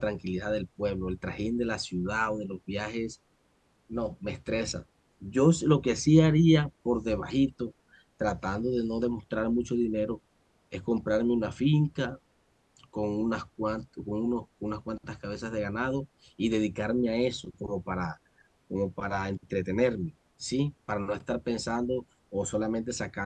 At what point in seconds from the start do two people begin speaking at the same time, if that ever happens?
none

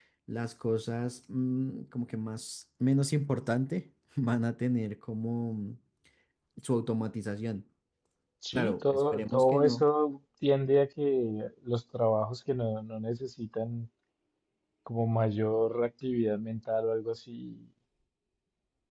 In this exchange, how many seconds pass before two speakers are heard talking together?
8.5 s

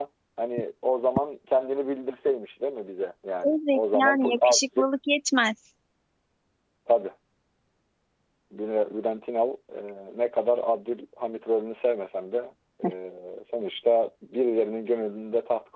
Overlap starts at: 3.4 s

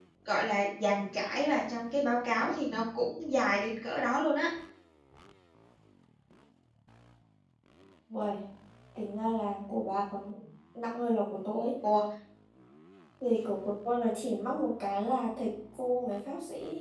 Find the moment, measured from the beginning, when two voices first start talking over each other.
none

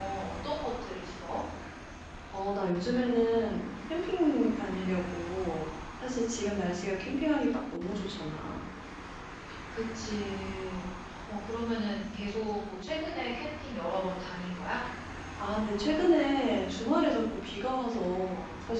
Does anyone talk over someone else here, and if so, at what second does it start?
none

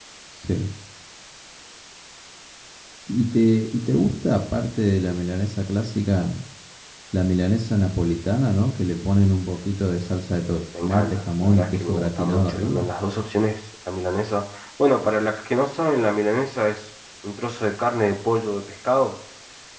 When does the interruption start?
10.8 s

